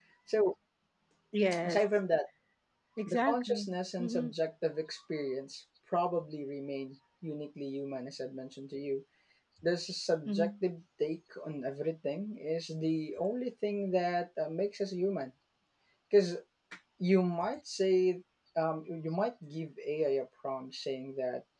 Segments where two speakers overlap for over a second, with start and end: 3.1-4.3

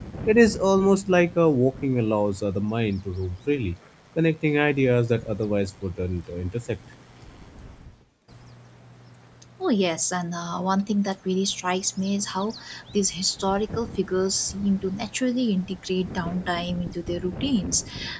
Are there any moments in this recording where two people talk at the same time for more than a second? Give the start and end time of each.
none

